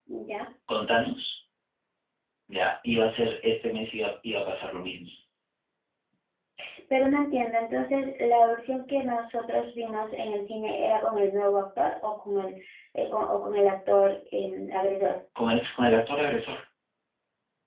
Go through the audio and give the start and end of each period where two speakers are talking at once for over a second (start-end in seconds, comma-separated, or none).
none